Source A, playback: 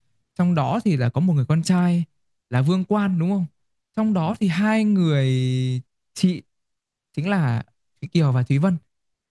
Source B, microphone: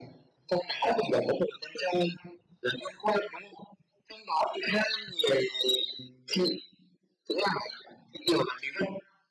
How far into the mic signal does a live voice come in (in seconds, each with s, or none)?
none